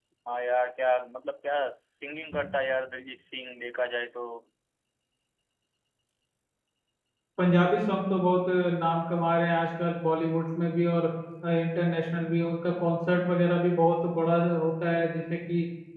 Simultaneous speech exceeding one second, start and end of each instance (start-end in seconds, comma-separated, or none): none